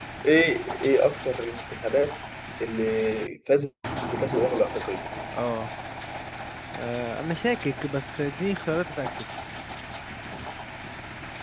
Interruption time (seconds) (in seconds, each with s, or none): none